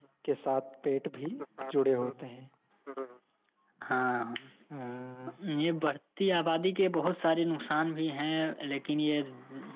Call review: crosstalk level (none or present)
none